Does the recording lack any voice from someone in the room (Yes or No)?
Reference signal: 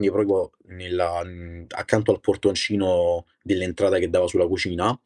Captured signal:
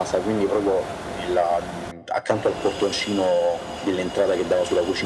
Yes